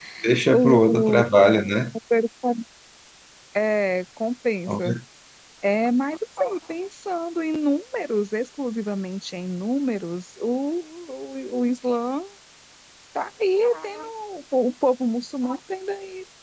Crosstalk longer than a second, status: present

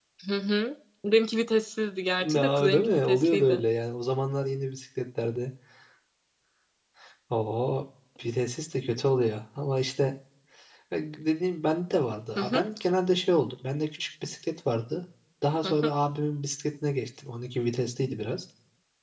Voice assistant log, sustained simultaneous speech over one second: present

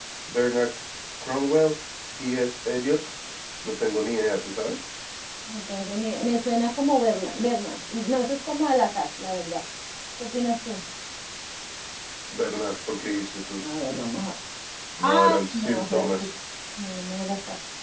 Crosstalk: present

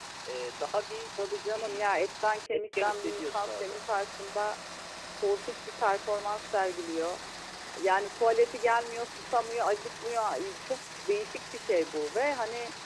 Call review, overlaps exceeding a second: present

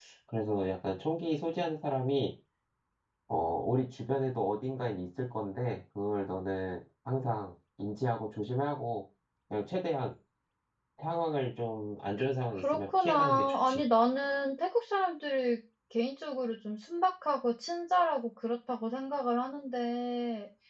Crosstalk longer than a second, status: present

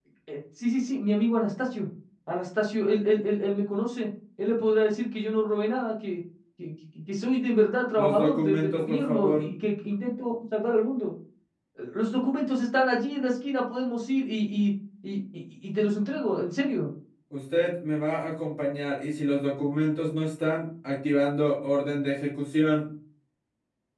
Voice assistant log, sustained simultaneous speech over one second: present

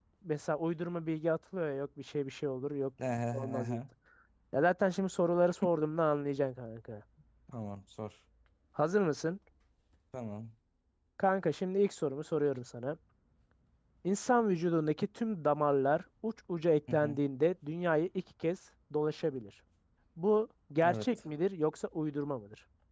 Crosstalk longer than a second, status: none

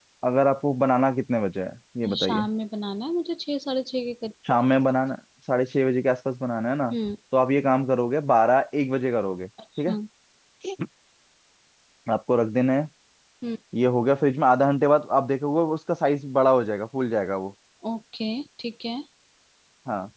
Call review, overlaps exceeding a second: none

